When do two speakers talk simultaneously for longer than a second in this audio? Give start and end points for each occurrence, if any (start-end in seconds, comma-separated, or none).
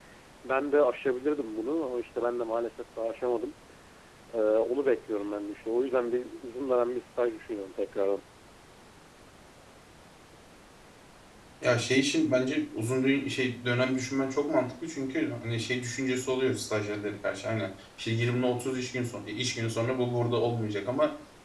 none